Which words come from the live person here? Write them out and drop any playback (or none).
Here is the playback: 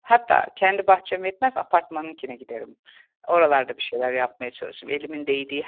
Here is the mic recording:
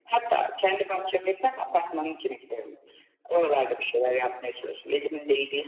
none